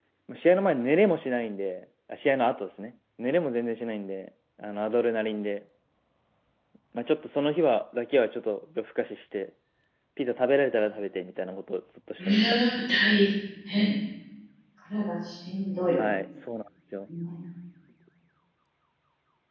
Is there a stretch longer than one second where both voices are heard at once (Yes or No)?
No